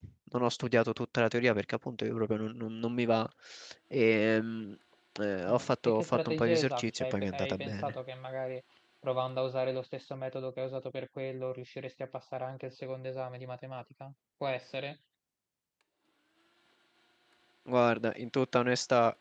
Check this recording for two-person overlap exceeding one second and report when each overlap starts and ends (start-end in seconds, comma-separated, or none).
5.5-8.0